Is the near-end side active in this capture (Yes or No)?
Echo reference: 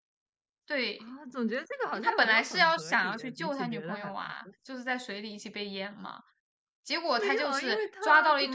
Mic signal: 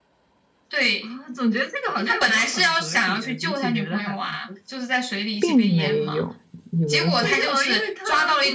Yes